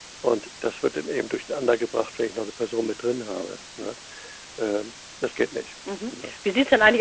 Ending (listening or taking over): taking over